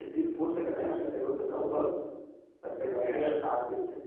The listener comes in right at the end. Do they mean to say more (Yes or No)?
No